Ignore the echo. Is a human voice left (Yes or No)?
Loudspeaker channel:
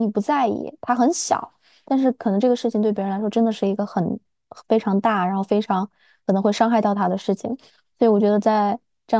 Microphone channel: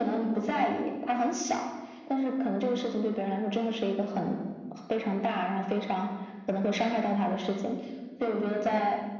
No